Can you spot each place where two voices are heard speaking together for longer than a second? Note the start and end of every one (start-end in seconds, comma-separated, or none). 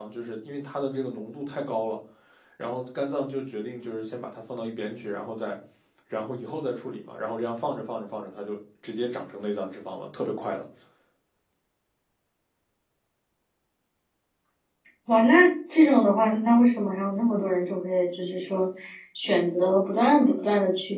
none